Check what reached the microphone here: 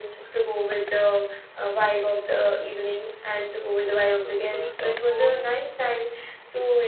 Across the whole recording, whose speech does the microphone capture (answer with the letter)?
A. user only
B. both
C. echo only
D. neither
B